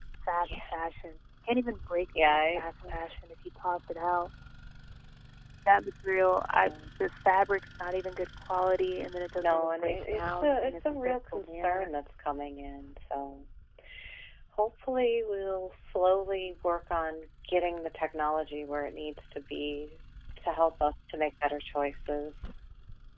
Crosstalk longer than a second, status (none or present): present